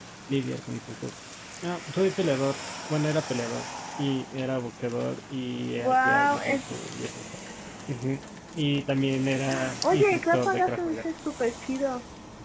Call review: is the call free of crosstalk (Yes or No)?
No